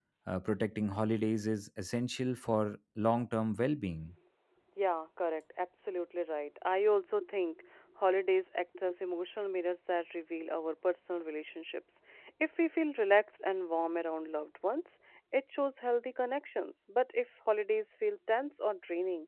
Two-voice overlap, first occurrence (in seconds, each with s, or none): none